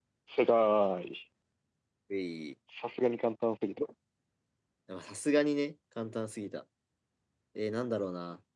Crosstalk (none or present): none